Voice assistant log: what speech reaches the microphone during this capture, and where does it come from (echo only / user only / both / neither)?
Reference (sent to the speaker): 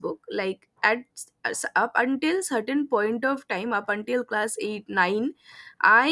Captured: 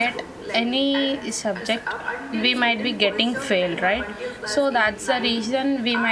both